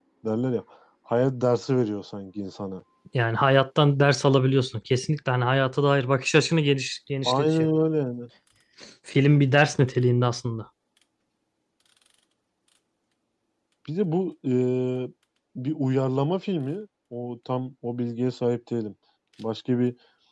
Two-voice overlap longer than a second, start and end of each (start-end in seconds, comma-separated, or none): none